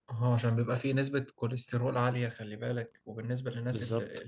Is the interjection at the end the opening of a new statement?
No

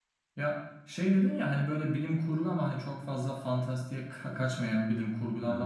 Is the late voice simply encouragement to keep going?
Yes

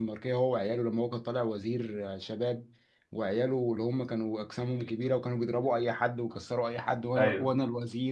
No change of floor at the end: Yes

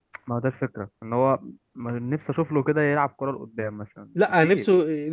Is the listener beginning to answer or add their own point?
Yes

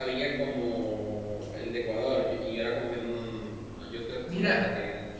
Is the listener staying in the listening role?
No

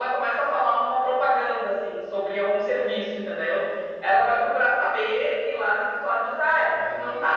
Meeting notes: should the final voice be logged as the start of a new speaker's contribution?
No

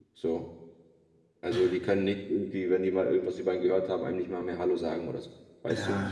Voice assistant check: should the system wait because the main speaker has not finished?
No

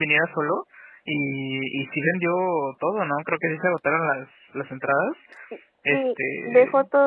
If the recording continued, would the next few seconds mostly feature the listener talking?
Yes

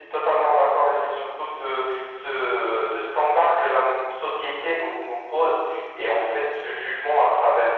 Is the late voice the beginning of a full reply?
No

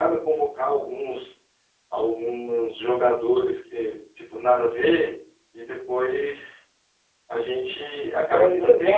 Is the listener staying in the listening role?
No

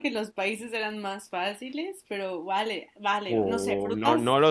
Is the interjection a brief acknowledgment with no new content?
No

